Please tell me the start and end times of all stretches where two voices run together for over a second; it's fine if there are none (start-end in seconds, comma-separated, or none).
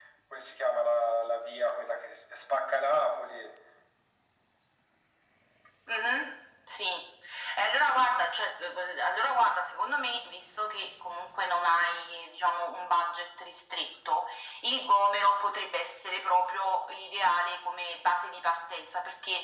none